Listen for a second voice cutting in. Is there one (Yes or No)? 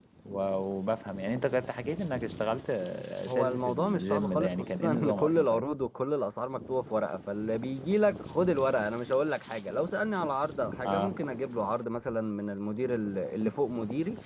Yes